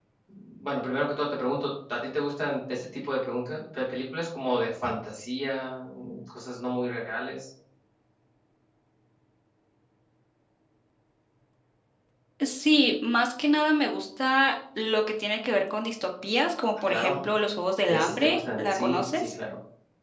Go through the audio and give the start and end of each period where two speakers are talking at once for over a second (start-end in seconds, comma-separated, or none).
17.9-19.3